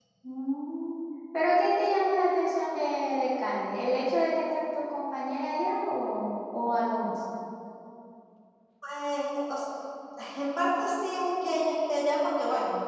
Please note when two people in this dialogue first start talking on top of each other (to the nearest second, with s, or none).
none